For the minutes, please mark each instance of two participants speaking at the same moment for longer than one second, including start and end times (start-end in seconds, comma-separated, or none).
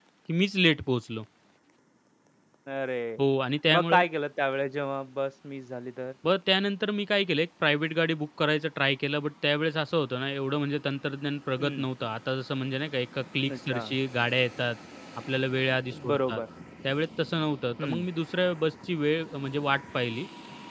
none